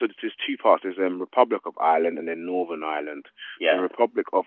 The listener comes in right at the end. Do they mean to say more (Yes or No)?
No